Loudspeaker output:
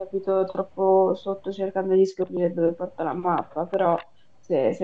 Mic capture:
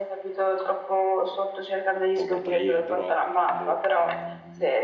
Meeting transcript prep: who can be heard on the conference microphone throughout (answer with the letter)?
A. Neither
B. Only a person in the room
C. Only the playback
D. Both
D